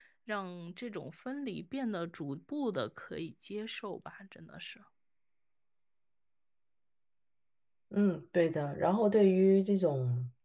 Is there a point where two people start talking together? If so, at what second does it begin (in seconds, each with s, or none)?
none